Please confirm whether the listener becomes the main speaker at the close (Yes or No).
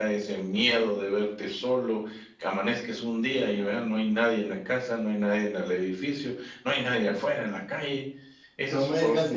Yes